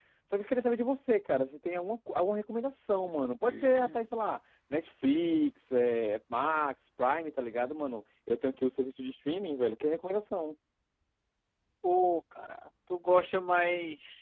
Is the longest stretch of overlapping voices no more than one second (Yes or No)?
Yes